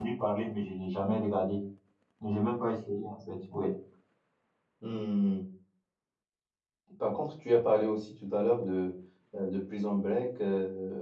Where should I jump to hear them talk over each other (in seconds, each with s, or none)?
none